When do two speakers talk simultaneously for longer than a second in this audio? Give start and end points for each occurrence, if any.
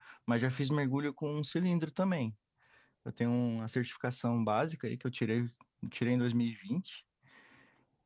none

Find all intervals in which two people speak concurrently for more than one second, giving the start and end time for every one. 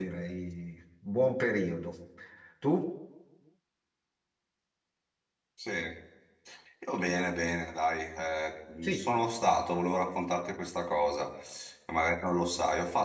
none

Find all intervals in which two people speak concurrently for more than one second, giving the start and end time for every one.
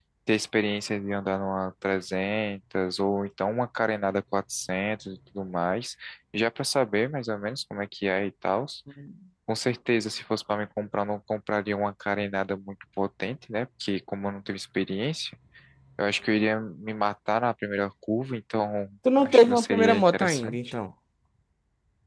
19.2-20.6

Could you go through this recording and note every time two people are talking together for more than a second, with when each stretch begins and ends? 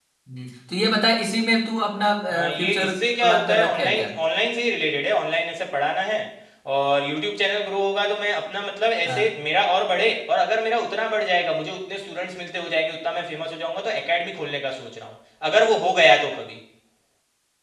2.6-4.1

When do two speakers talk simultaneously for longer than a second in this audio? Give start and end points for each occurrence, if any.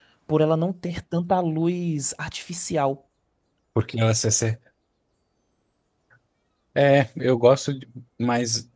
none

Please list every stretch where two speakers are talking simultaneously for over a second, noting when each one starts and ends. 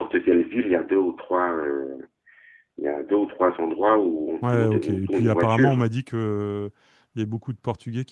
4.4-5.8

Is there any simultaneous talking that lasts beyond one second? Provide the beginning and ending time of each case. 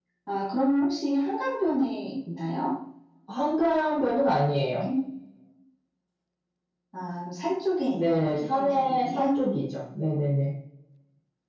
7.9-9.4

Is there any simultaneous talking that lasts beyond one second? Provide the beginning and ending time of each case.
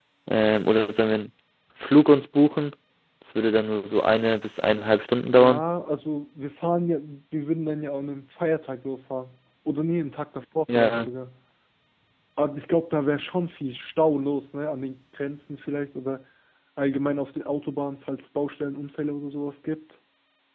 none

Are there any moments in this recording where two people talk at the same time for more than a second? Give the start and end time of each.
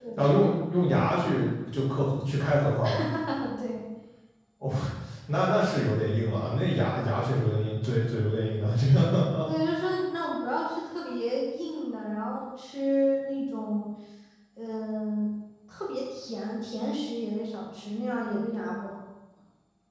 none

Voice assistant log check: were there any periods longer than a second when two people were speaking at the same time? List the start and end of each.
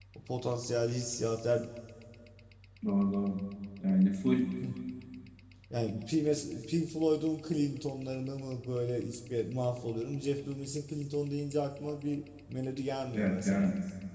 none

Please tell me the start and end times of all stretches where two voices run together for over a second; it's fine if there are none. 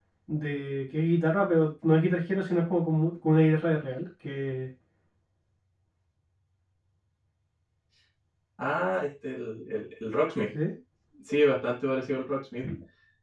none

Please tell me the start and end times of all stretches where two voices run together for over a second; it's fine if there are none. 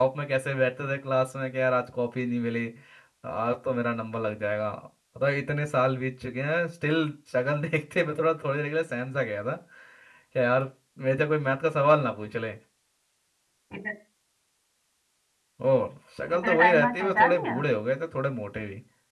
16.3-17.6

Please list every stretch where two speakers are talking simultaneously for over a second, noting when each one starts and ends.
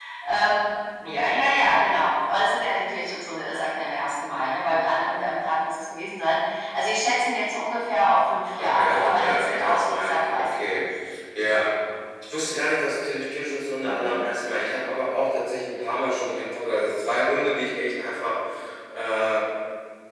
8.6-10.8

